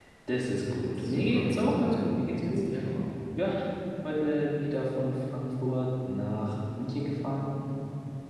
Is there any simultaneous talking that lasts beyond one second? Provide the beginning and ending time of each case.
0.7-2.6

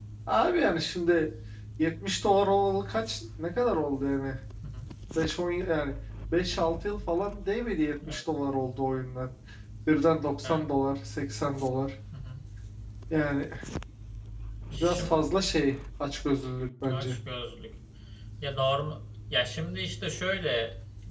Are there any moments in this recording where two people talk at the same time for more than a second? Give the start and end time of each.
none

